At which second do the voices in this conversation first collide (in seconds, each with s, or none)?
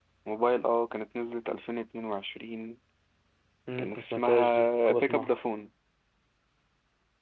3.8 s